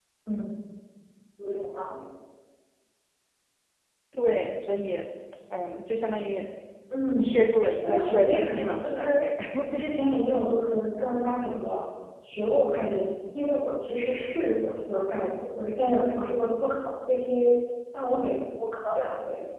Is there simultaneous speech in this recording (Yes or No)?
Yes